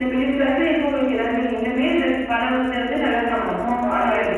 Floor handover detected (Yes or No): Yes